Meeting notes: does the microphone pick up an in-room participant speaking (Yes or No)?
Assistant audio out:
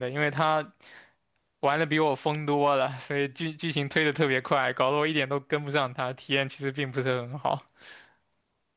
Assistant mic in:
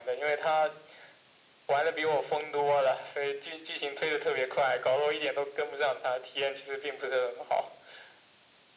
No